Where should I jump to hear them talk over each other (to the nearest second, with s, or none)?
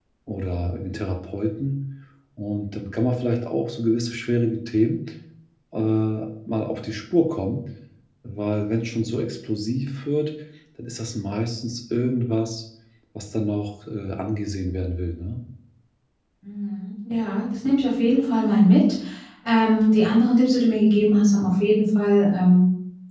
none